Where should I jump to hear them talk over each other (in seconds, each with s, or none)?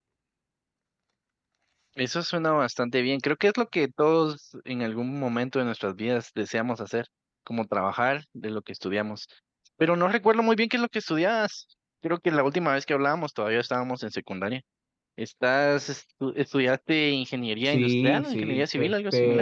17.6 s